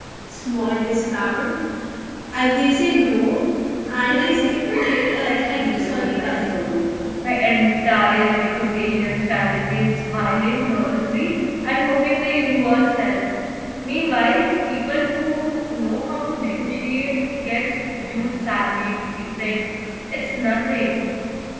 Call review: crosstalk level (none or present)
present